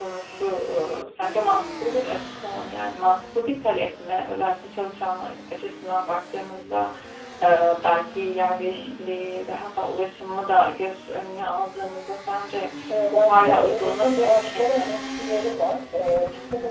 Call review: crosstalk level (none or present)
present